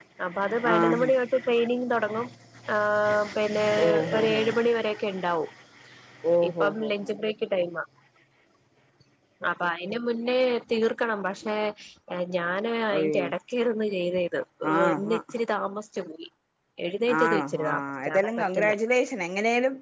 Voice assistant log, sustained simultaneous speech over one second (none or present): present